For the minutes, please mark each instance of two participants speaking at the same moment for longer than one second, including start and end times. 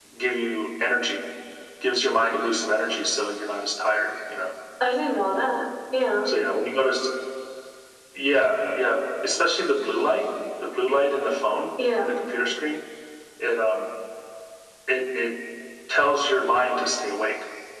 none

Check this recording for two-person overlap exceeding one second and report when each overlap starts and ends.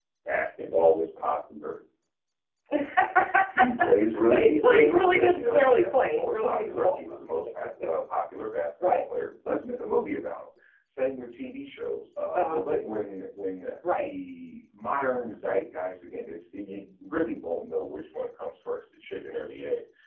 4.3-7.0

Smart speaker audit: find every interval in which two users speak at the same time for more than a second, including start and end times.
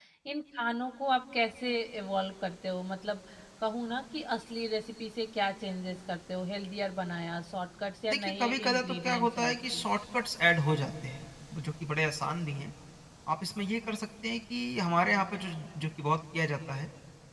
8.1-9.9

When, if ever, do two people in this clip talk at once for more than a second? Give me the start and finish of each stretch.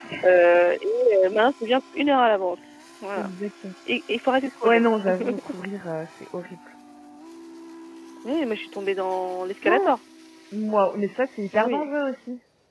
none

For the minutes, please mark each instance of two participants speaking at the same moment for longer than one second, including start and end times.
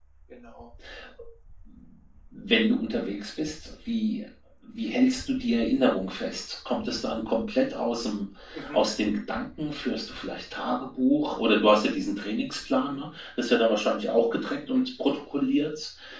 none

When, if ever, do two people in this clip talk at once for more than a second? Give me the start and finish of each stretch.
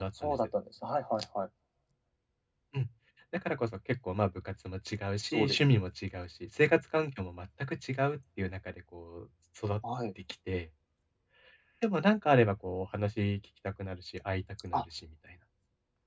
none

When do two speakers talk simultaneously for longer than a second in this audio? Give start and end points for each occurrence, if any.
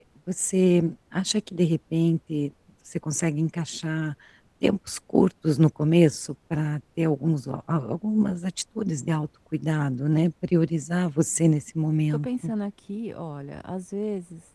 none

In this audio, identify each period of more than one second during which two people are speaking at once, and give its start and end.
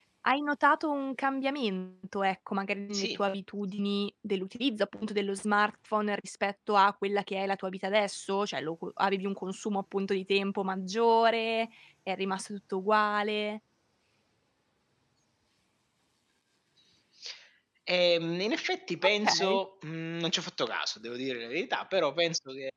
none

